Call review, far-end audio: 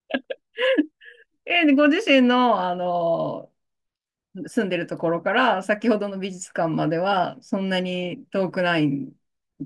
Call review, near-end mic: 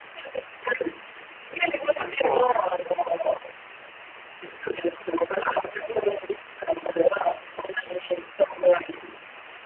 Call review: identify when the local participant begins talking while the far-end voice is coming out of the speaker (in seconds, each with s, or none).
1.9 s